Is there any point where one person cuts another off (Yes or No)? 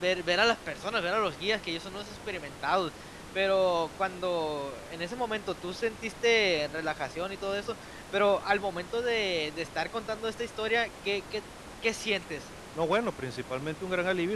No